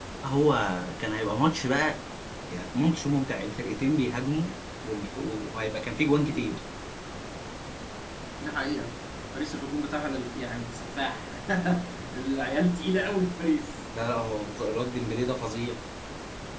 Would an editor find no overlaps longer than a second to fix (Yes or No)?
Yes